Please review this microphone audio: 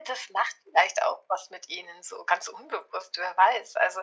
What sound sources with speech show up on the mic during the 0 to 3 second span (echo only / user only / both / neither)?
echo only